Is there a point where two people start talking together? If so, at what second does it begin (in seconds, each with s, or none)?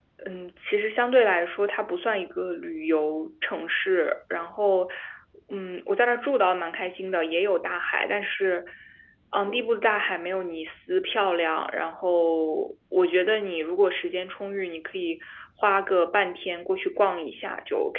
none